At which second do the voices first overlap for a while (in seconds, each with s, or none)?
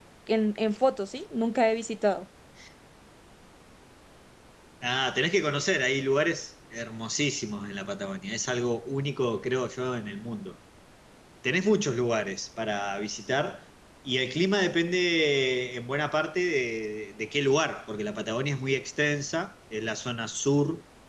none